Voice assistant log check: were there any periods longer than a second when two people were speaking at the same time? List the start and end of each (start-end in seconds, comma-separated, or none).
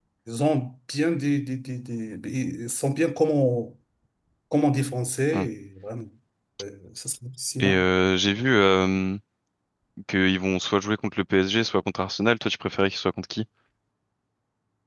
none